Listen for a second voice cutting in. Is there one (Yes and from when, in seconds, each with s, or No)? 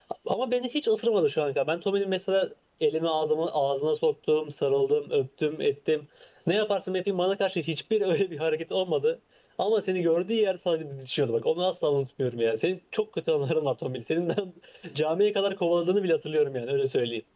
No